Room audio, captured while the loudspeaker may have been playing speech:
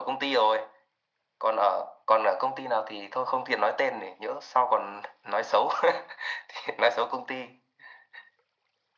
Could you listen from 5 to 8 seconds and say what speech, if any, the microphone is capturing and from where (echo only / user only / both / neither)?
echo only